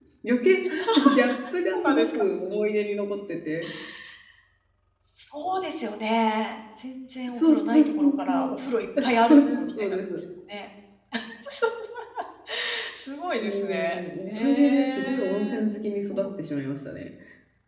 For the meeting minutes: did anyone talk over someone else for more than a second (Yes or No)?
Yes